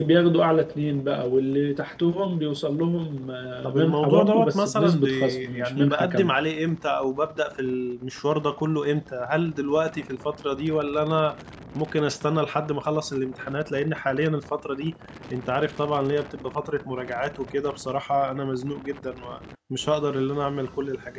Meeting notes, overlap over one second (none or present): present